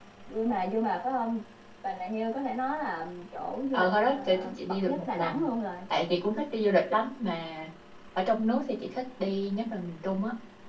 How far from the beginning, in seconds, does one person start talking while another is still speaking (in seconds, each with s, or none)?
3.7 s